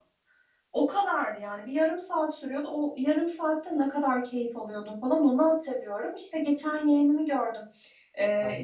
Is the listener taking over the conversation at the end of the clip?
No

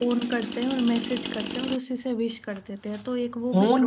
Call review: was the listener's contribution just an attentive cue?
No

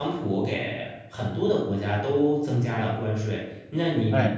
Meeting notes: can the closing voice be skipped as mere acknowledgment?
Yes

